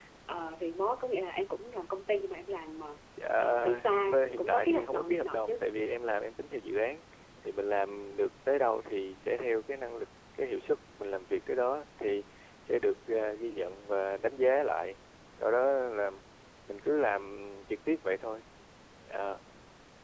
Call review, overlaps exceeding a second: present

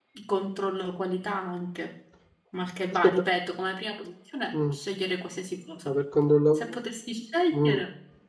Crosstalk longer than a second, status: none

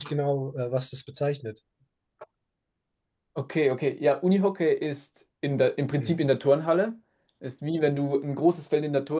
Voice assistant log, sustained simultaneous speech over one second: none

